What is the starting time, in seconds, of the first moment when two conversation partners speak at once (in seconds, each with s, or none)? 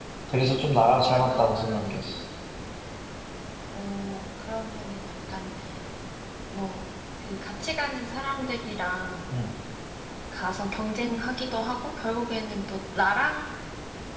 0.7 s